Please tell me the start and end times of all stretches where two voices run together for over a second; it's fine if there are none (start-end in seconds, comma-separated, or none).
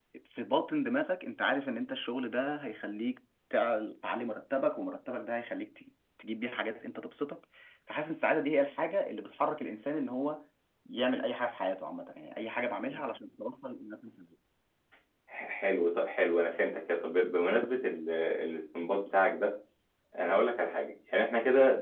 none